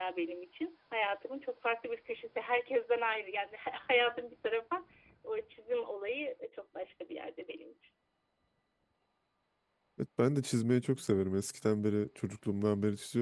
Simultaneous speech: No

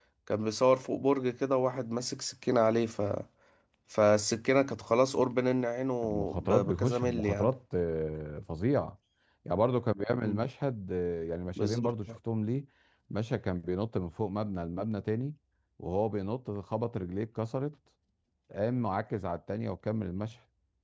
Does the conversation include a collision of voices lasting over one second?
Yes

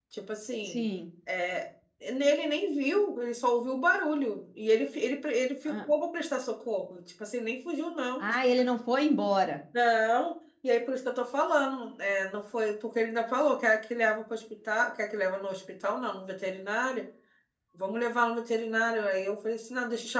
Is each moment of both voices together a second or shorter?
Yes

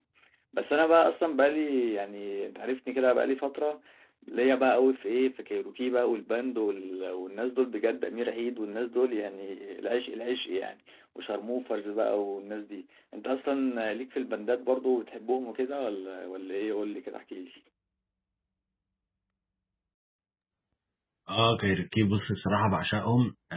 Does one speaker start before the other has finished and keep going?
No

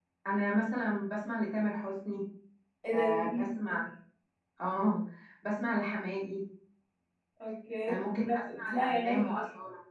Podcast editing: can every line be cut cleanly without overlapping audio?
No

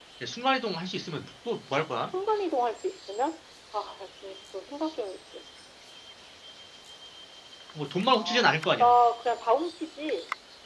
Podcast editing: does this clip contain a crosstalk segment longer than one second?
No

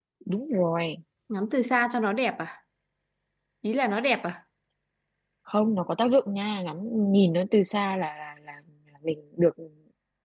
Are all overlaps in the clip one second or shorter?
Yes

